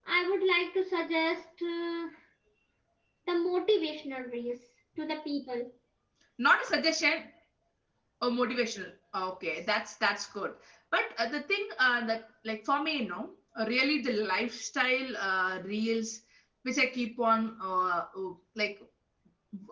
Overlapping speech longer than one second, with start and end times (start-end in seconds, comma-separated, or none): none